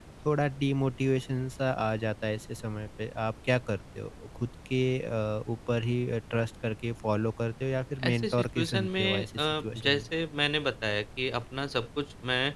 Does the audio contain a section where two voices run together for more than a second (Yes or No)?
Yes